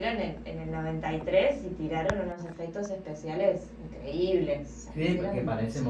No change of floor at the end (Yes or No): No